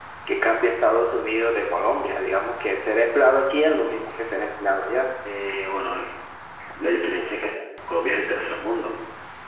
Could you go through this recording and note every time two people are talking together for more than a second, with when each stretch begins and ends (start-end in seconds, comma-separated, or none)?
none